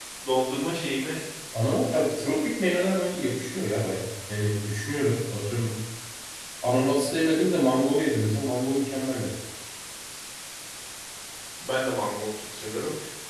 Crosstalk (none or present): none